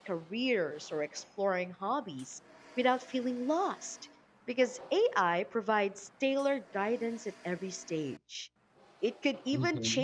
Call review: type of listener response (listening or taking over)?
listening